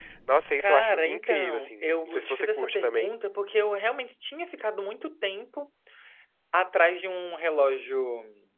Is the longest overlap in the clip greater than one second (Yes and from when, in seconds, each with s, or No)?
Yes, from 0.6 s